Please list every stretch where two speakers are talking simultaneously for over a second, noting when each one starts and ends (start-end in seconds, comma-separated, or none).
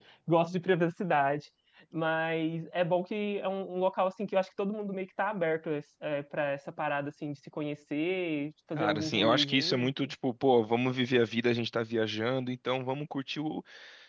8.8-10.1